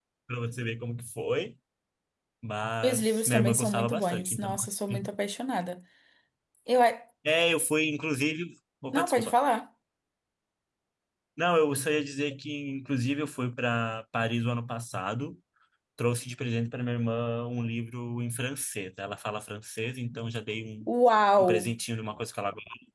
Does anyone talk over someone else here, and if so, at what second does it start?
2.8 s

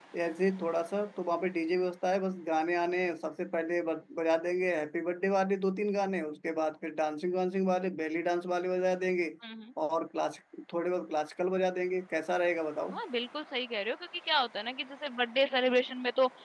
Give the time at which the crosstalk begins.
none

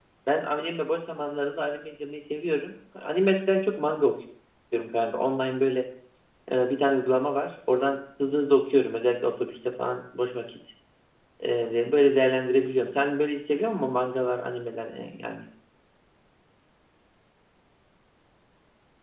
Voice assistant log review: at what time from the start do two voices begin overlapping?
none

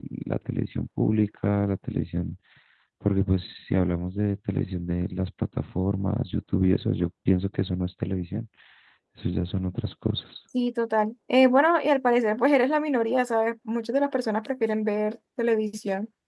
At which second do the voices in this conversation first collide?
none

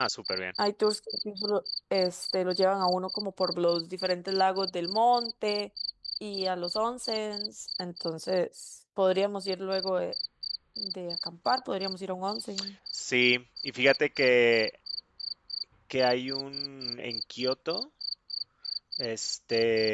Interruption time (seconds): none

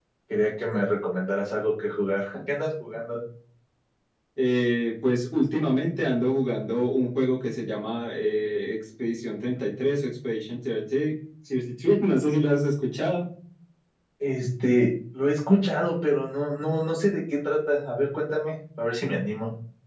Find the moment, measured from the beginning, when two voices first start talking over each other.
none

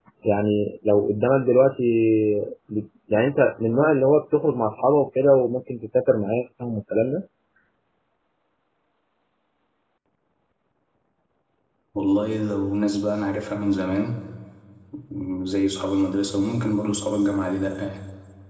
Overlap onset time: none

